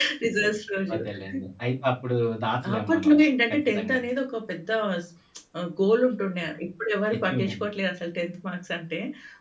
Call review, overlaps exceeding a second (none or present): none